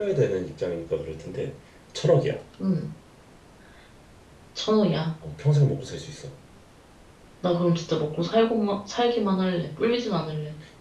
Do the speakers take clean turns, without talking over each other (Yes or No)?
Yes